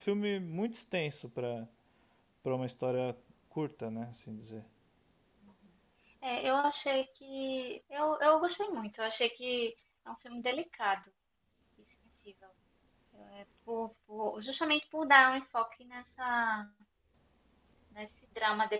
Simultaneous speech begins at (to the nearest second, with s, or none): none